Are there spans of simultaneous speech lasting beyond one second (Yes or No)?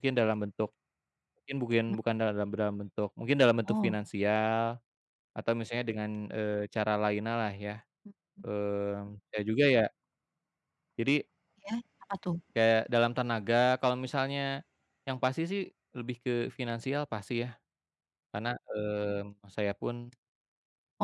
No